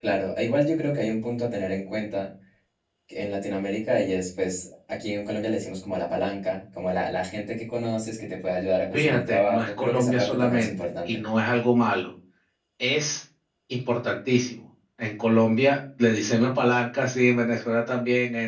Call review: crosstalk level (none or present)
present